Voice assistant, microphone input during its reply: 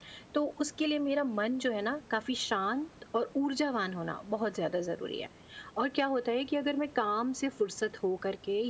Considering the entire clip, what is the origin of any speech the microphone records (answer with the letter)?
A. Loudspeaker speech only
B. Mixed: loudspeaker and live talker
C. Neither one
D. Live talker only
A